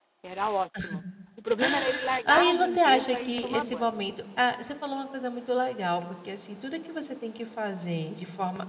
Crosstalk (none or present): present